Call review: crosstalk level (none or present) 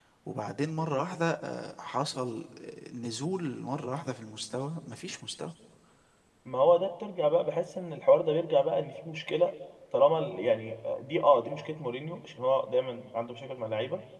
none